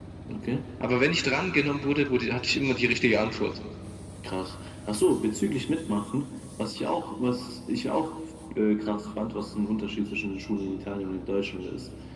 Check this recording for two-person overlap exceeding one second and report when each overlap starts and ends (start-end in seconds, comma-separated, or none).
none